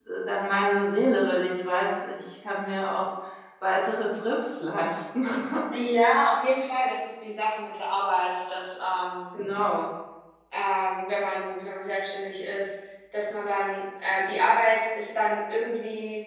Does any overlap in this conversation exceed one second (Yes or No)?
No